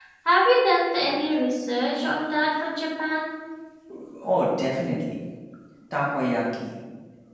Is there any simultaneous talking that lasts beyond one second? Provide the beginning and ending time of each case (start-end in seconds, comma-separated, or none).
none